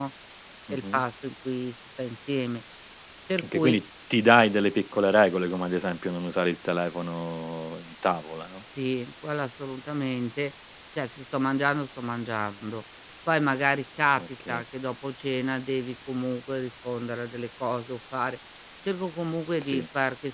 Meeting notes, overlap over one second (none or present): none